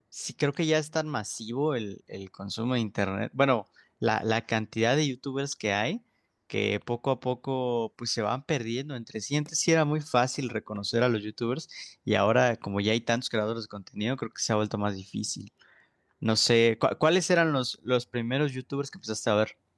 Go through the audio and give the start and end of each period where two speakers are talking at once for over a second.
none

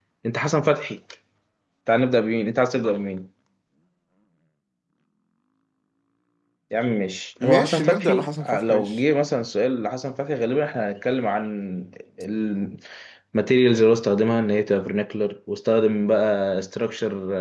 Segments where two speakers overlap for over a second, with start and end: 7.4-9.0

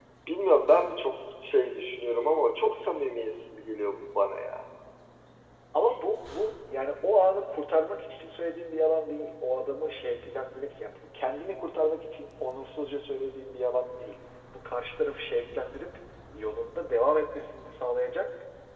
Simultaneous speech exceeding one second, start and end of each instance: none

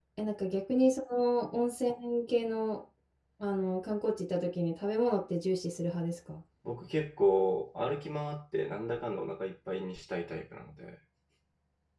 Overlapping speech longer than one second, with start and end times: none

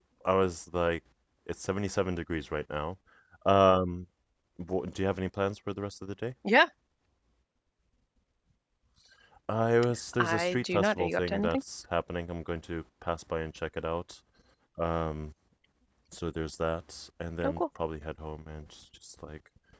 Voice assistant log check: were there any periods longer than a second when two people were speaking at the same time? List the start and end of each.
10.2-11.6

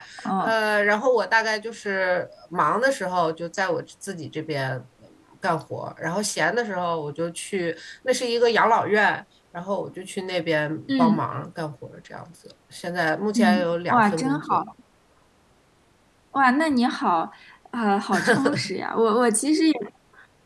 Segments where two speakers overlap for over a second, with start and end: 13.3-14.6

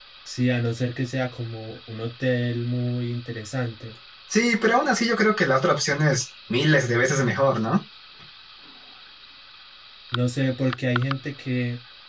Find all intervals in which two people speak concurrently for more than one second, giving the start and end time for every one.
none

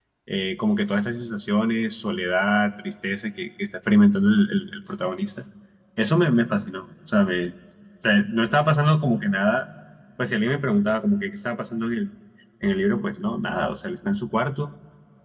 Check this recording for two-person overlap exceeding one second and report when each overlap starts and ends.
none

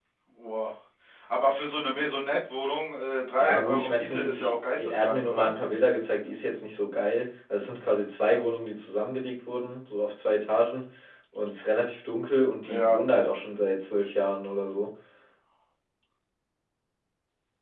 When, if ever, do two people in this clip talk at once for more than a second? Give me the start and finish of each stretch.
3.4-5.5

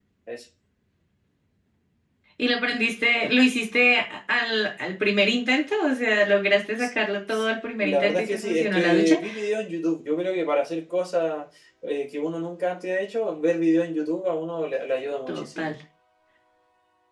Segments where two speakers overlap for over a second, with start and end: 7.8-9.2

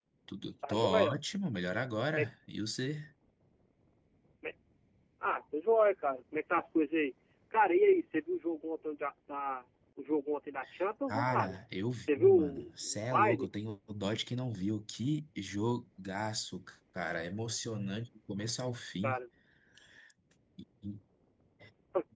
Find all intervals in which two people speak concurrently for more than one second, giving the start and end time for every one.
12.0-13.5

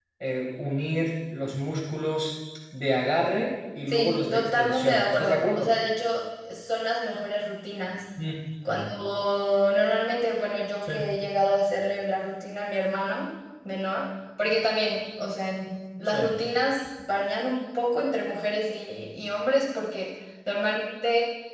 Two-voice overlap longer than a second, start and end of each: 3.9-5.7

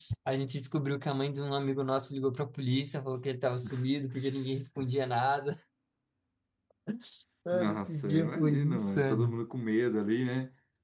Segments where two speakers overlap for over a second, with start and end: 7.5-9.3

